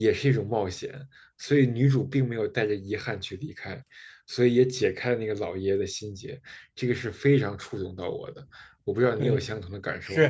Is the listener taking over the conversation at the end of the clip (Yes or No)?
Yes